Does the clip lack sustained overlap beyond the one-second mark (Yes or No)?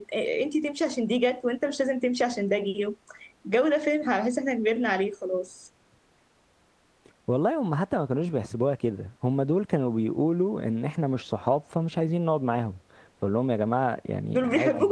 Yes